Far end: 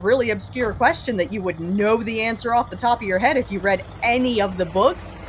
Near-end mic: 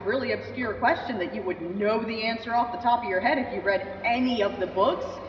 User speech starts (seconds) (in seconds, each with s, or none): none